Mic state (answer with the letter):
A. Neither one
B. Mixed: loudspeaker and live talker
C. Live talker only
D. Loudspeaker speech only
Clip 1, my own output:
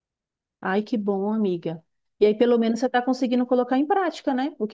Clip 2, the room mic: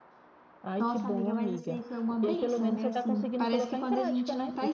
B